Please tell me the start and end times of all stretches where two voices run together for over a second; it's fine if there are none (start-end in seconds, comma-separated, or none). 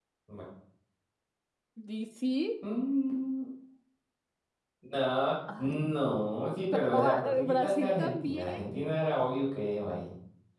6.7-8.5